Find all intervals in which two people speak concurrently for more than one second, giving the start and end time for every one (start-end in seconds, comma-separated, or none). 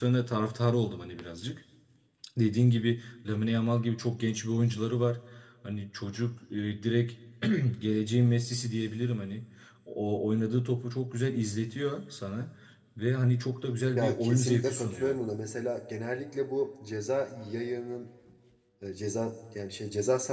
13.9-15.2